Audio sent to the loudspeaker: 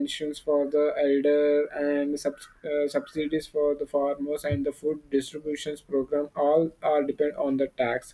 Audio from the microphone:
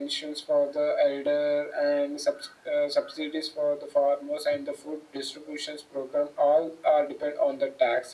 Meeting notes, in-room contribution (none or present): none